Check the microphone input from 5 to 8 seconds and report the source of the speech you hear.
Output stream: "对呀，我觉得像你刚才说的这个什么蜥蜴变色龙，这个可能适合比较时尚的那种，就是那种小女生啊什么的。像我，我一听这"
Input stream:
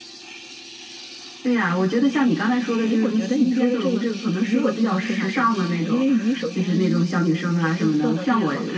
both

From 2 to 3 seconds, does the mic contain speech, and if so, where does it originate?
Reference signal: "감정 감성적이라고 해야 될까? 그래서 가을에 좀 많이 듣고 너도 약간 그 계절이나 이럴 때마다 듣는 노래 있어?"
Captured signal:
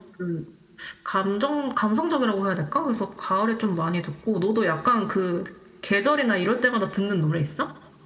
echo only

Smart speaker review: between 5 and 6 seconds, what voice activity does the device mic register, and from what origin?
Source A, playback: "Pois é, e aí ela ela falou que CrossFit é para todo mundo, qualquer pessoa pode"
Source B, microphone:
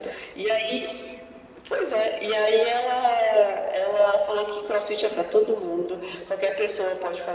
echo only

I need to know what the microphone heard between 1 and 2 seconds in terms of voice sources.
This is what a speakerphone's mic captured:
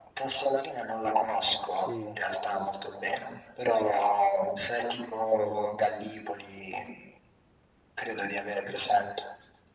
both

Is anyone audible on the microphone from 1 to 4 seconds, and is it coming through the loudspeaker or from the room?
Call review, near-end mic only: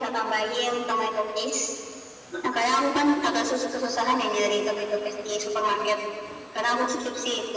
echo only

